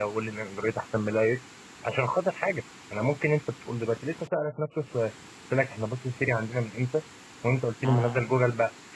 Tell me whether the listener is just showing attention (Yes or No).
Yes